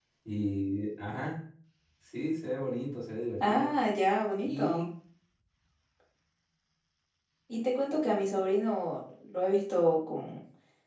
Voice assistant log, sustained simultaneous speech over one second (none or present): none